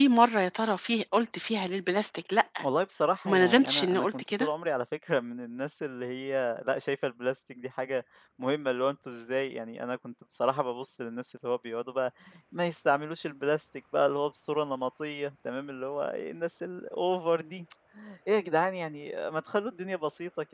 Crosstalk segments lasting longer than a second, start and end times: 3.2-4.5

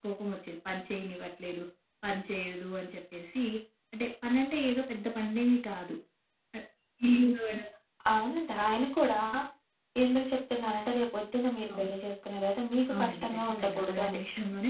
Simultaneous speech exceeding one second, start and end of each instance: 12.9-14.2

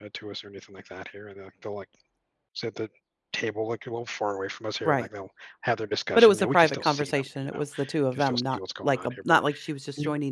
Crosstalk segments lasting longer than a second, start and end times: 6.2-7.6, 8.1-9.4

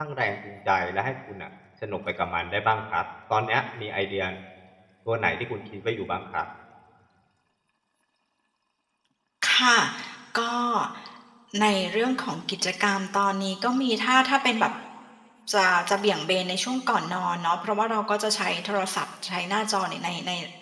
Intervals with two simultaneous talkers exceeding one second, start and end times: none

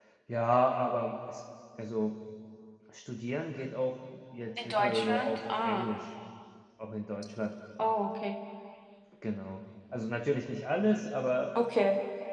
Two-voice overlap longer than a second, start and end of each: 4.6-5.9

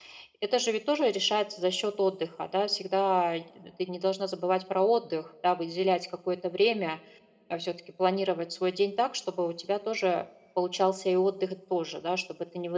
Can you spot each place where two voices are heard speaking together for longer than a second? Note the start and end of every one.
none

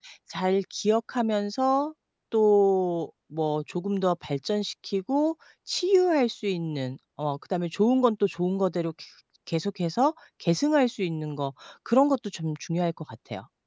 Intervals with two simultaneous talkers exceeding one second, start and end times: none

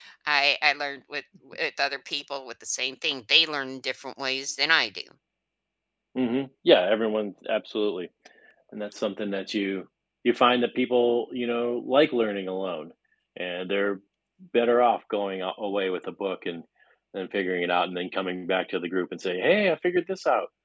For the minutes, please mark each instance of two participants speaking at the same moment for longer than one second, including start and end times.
none

